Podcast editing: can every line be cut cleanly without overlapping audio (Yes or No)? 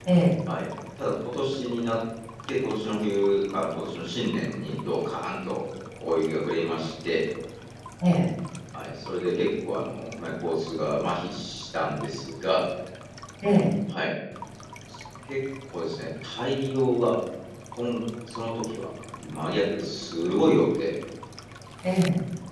Yes